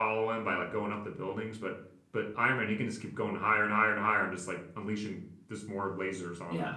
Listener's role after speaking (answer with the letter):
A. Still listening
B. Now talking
B